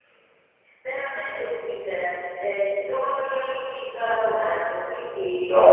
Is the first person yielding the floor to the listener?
No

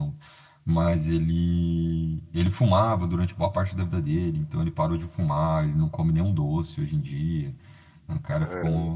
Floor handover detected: No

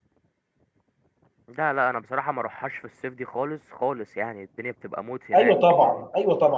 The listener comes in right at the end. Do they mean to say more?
Yes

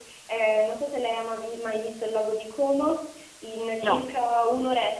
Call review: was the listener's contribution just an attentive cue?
Yes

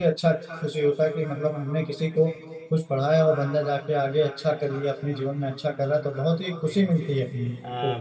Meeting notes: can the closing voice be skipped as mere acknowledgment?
No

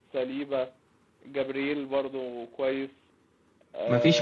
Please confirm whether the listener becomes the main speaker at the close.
No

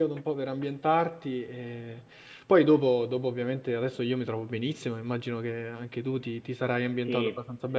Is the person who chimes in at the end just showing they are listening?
No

